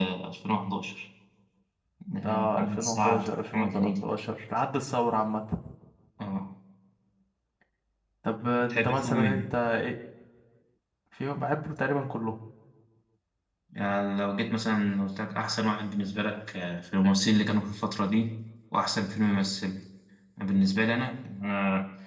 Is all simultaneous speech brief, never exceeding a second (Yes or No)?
No